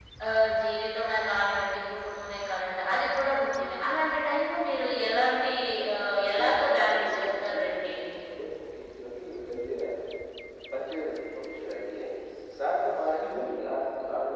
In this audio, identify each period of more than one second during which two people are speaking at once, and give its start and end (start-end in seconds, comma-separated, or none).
6.3-8.2